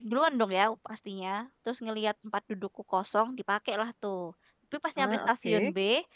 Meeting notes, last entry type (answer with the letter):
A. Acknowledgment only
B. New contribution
A